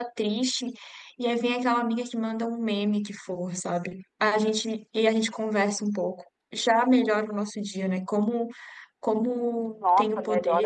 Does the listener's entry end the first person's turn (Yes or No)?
Yes